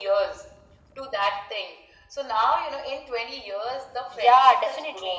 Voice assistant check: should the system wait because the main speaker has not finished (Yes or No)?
No